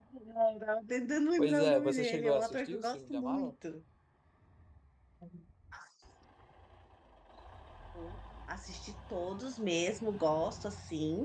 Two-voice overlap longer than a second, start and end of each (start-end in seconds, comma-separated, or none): 1.4-3.5